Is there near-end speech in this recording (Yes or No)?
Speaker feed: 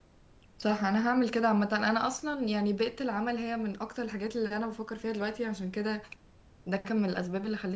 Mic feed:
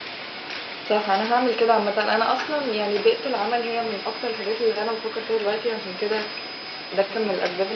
No